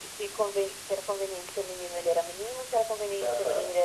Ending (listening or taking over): listening